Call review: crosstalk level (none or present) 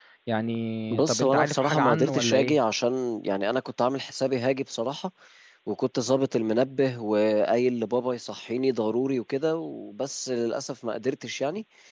present